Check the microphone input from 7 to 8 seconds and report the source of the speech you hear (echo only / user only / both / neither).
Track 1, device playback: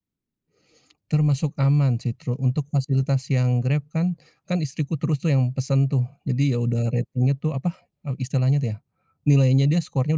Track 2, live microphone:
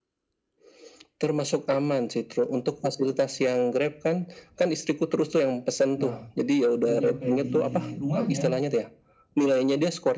both